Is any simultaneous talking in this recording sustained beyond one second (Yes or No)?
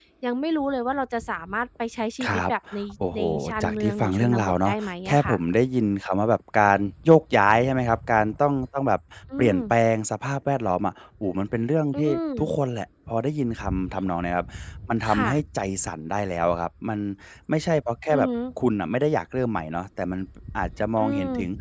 Yes